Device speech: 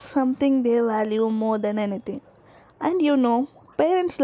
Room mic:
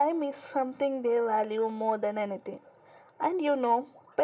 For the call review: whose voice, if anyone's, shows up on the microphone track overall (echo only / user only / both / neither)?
echo only